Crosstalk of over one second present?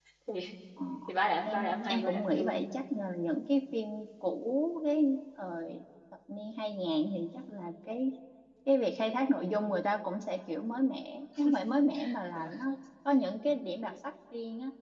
Yes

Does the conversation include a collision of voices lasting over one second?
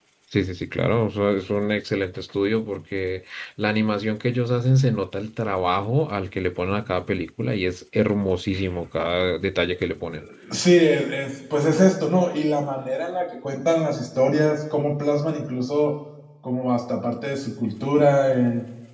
No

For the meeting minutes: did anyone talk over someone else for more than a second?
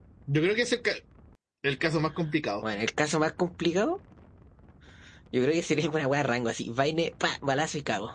No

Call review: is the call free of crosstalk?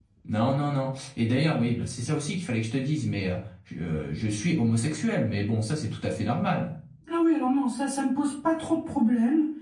Yes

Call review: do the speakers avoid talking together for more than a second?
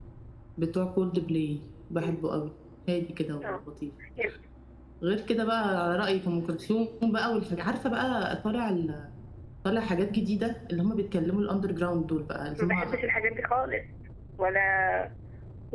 Yes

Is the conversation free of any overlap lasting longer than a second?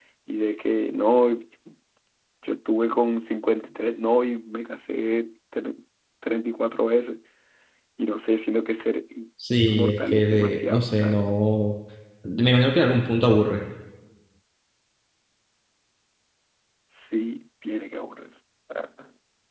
No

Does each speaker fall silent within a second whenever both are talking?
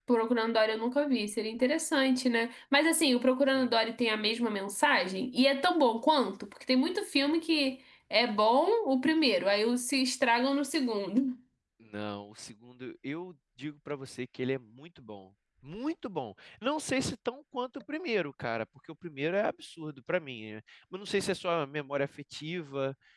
Yes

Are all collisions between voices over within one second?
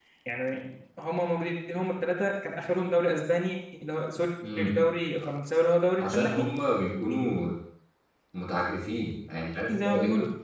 Yes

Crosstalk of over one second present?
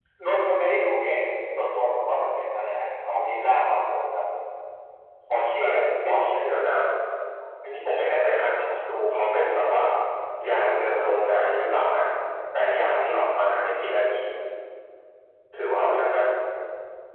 No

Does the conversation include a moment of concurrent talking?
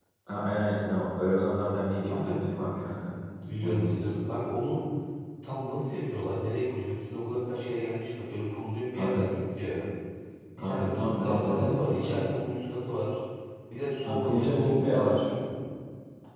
Yes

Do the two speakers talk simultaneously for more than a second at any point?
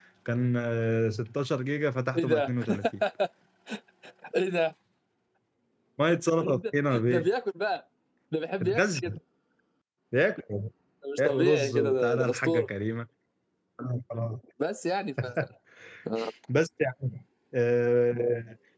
Yes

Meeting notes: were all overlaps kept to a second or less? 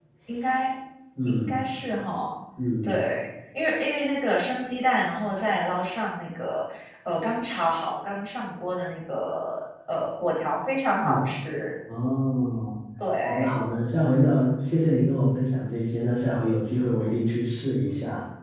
Yes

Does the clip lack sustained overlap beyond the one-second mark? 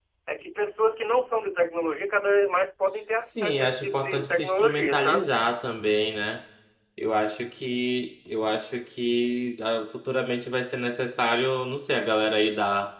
No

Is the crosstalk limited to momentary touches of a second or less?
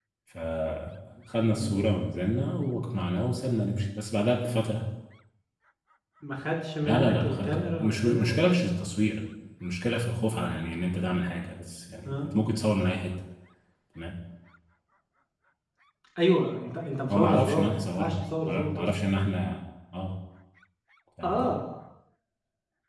No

